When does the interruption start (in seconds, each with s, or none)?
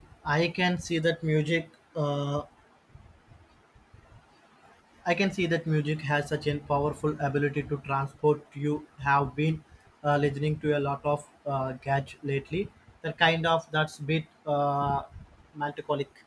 none